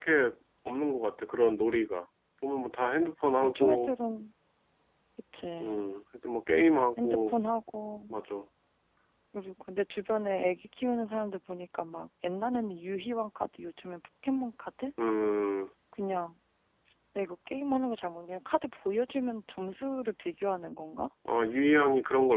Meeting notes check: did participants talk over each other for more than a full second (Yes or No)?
No